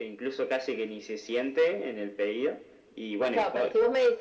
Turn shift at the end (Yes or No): Yes